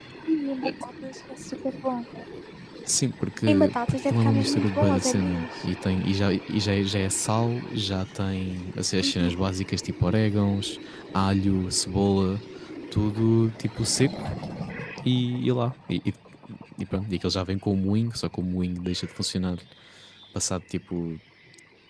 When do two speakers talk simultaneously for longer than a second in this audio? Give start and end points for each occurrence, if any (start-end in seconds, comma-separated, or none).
3.5-5.5